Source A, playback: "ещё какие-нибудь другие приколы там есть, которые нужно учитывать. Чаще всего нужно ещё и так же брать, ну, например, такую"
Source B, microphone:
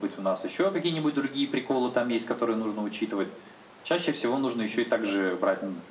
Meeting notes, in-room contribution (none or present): none